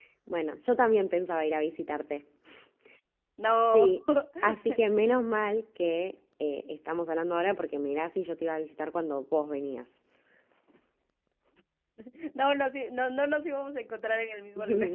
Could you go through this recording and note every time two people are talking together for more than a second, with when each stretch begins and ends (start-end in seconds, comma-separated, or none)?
none